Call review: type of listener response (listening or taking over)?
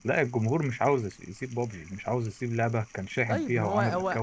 taking over